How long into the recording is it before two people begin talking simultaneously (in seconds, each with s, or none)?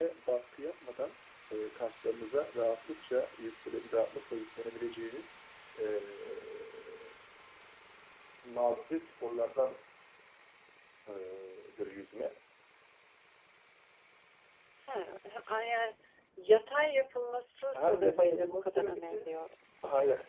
17.7 s